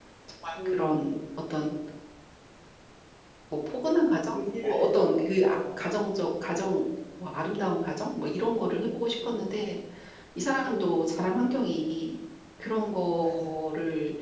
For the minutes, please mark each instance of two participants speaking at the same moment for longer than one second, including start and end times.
4.3-5.8

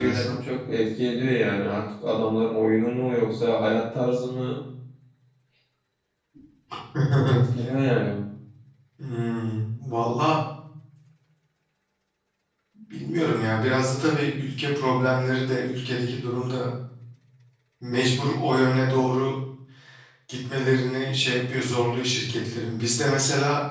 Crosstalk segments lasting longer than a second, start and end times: none

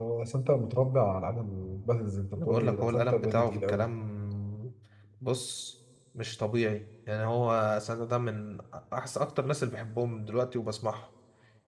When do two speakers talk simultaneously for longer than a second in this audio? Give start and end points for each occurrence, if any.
2.4-3.9

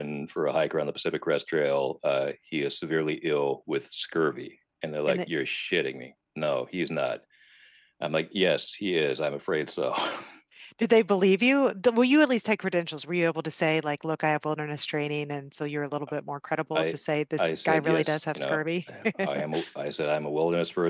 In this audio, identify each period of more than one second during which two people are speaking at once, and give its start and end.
17.4-18.6

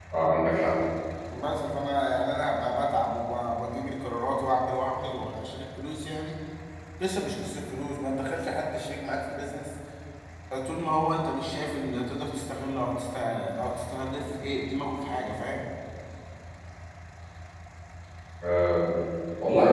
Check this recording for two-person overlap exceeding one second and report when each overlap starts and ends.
none

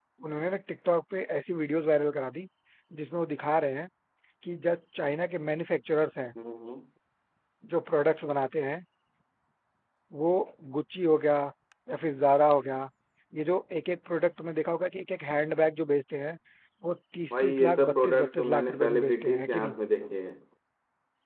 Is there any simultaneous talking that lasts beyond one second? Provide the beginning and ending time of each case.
17.3-19.8

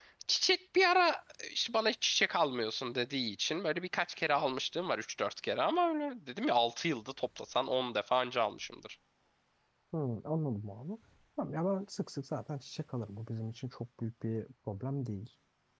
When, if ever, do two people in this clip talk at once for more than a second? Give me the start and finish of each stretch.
none

